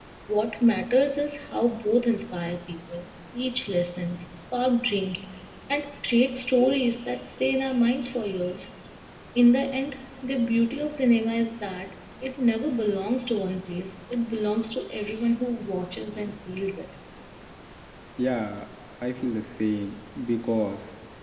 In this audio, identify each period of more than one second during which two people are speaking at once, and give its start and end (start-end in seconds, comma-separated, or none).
none